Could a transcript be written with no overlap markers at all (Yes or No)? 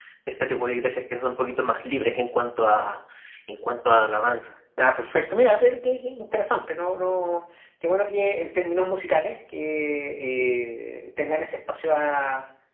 Yes